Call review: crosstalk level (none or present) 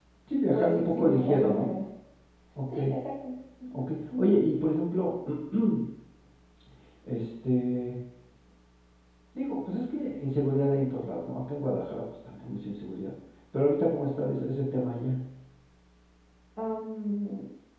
present